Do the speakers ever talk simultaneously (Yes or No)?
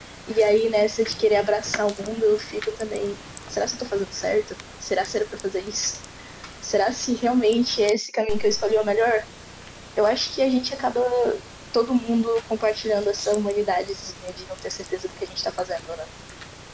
No